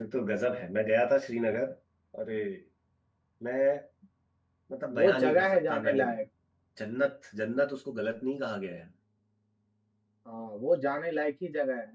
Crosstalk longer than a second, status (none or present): present